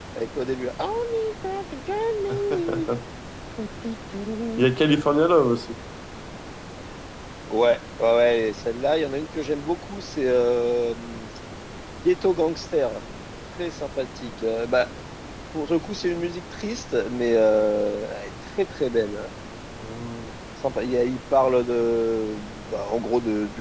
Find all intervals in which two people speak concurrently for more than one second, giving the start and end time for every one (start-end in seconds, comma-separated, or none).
none